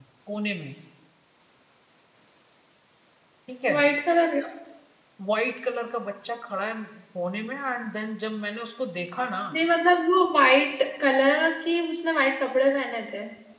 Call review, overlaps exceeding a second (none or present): none